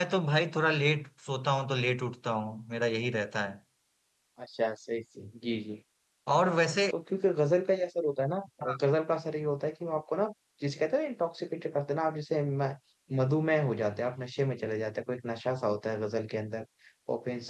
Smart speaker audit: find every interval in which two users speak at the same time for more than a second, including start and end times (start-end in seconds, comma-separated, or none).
none